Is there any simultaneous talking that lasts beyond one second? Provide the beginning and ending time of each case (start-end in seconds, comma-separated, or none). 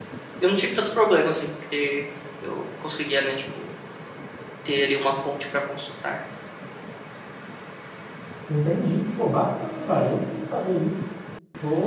none